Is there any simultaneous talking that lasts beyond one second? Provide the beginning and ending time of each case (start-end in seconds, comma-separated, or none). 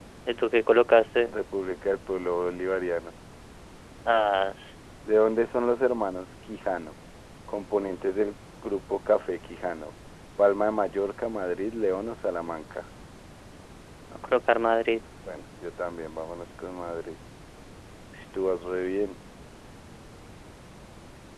none